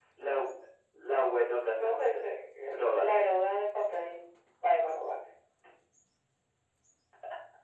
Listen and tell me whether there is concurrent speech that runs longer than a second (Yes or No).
No